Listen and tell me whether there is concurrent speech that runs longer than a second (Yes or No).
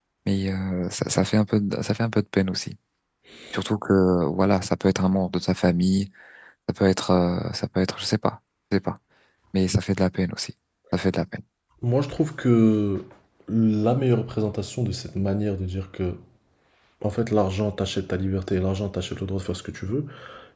No